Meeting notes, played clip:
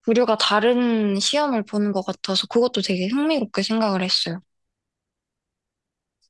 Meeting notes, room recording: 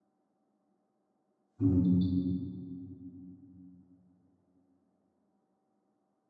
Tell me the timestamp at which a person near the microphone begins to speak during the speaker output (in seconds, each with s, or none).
1.6 s